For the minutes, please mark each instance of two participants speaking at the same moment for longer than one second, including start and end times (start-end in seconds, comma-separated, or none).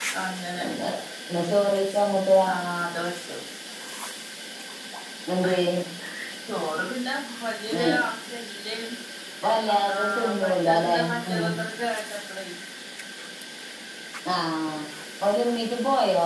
9.9-11.4